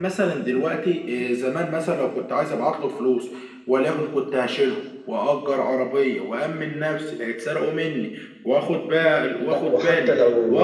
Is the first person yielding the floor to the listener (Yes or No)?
Yes